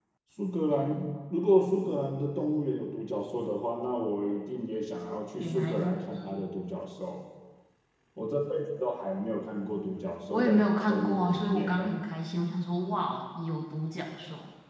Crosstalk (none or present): present